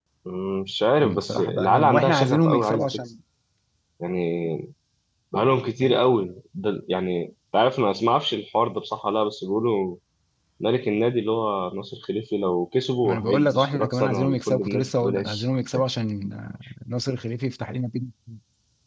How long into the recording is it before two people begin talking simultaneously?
1.0 s

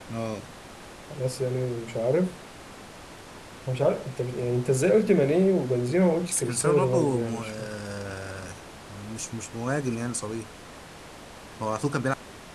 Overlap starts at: 6.3 s

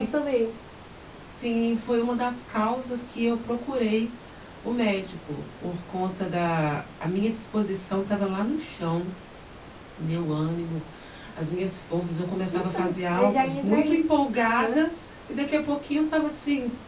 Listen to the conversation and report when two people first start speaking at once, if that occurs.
12.5 s

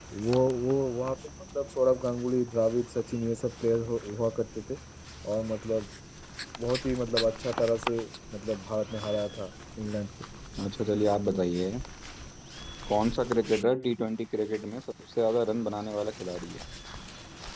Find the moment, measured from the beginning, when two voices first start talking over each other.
none

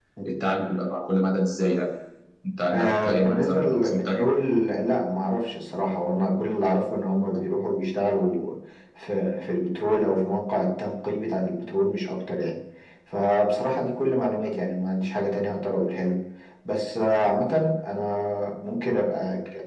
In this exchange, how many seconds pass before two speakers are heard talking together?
2.7 s

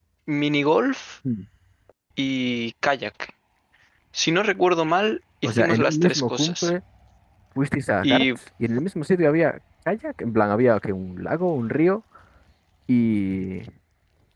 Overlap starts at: 5.4 s

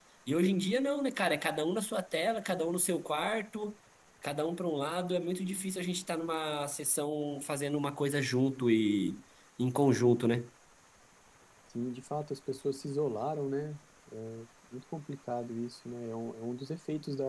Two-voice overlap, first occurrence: none

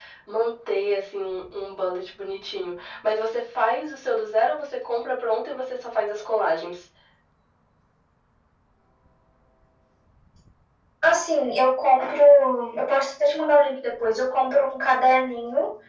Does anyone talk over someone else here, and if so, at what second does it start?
none

